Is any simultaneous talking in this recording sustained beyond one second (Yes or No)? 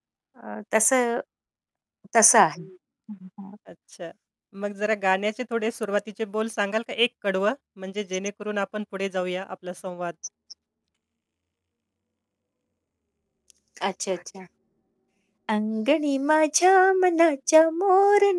No